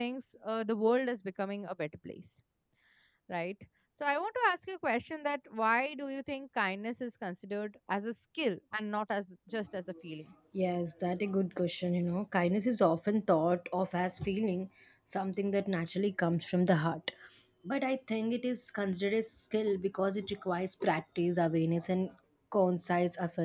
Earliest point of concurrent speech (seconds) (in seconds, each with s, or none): none